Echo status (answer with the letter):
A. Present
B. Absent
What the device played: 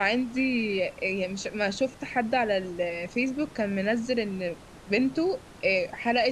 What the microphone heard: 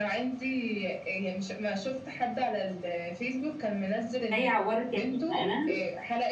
A